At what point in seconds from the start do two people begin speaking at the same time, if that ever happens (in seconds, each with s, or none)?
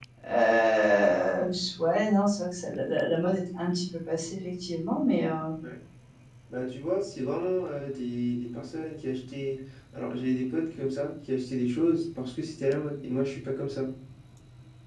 none